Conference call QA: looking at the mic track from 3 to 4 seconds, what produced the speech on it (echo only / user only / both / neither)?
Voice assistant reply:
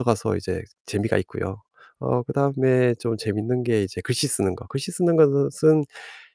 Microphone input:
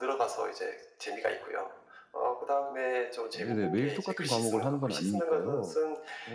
both